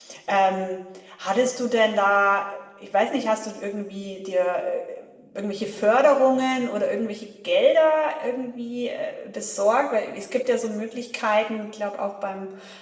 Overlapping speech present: No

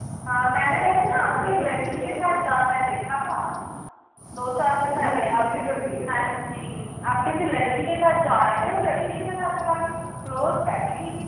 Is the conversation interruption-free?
No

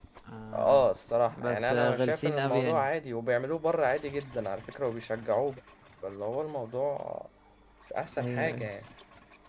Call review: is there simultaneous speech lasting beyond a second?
Yes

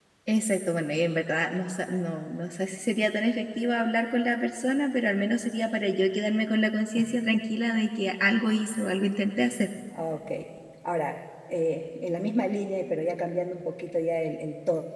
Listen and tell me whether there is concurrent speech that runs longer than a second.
No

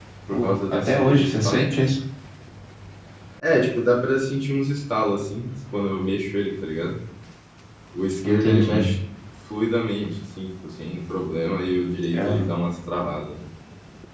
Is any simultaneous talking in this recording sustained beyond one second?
Yes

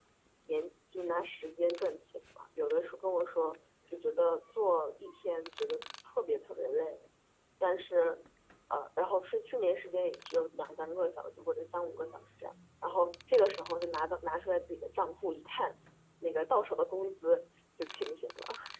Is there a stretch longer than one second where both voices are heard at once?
No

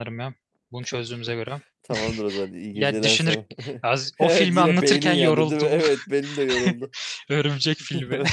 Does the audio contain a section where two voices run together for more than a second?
Yes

